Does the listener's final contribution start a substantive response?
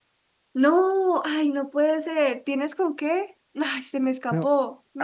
Yes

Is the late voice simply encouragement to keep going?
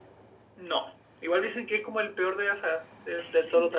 No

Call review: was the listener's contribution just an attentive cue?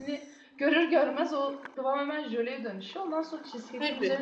Yes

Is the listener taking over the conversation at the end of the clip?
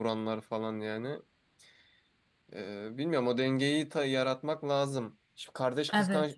No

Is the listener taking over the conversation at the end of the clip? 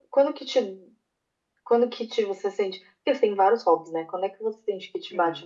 No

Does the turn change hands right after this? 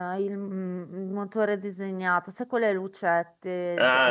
Yes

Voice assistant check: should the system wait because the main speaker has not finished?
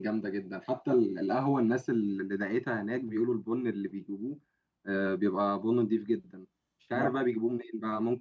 Yes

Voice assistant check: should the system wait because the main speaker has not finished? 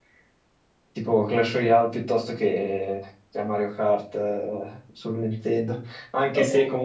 Yes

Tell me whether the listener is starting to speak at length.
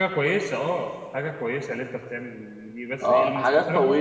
Yes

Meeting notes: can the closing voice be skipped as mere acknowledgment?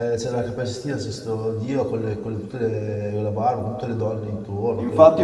No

